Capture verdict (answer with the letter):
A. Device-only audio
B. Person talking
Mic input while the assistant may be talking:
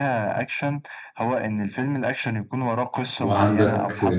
B